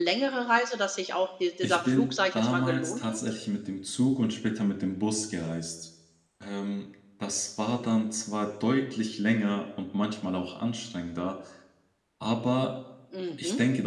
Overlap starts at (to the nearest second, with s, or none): 2 s